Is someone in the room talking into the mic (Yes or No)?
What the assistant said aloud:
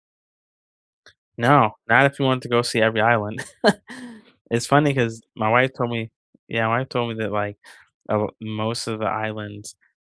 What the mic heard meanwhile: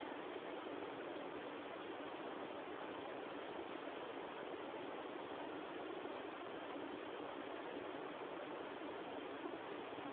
No